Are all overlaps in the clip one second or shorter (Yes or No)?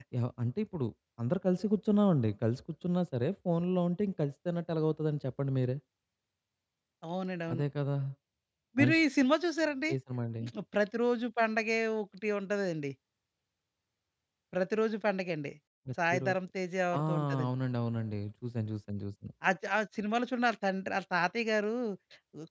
Yes